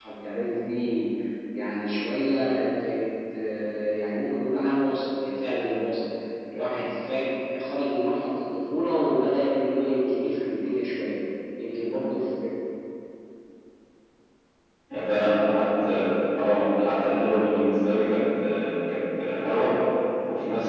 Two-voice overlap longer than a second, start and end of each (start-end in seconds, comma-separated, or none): none